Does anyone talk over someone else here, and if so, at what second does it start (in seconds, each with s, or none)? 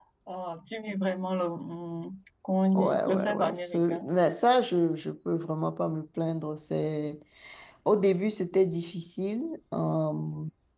2.8 s